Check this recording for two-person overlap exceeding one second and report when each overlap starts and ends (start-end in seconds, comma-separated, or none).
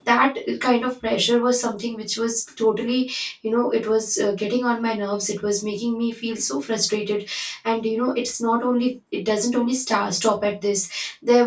none